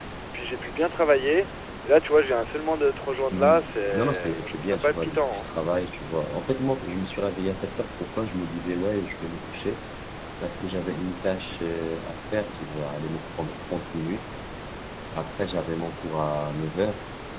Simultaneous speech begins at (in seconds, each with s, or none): 3.3 s